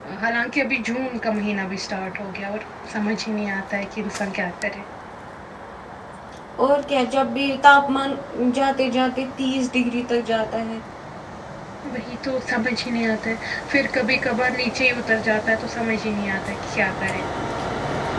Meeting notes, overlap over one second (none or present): none